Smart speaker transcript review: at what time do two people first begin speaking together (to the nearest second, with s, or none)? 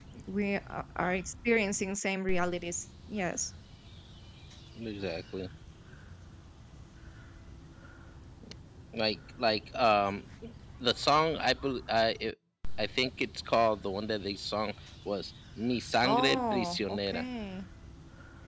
16 s